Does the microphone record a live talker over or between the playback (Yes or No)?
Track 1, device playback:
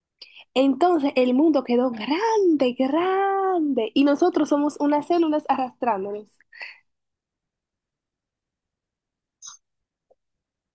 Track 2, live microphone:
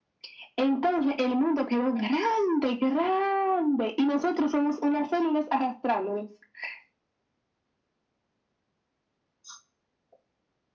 No